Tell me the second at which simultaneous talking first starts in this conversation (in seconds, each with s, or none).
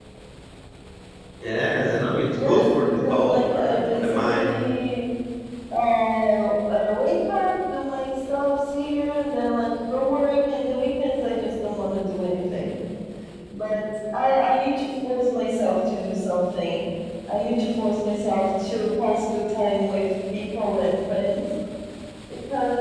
2.3 s